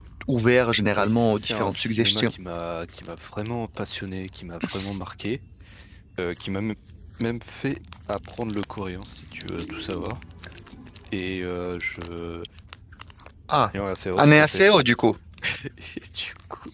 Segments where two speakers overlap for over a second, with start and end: 1.0-2.3

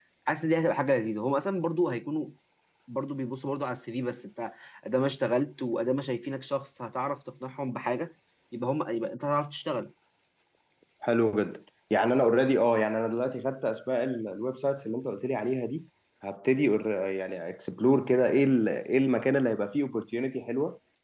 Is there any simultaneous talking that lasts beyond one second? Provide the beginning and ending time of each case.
none

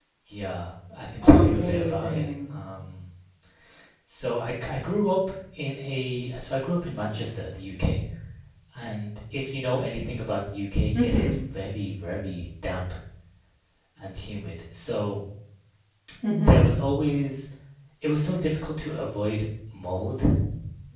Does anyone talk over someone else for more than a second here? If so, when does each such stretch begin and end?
1.2-2.5

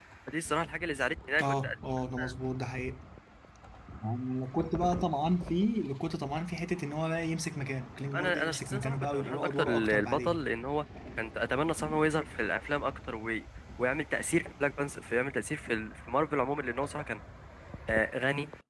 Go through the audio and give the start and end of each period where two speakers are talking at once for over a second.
8.1-10.5

